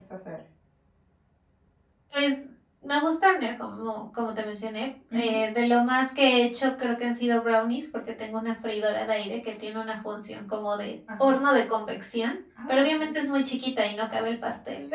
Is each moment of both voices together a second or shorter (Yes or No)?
Yes